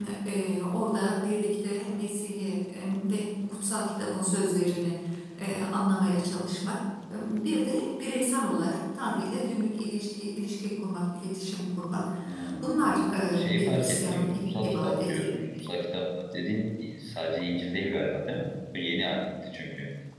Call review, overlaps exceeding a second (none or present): present